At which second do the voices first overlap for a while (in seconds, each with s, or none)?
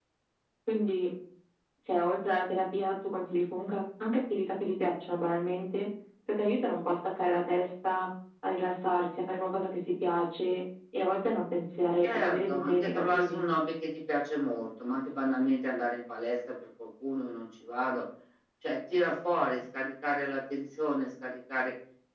12.0 s